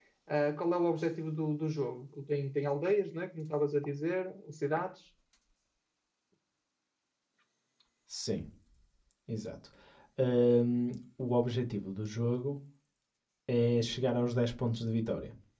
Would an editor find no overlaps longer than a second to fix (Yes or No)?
Yes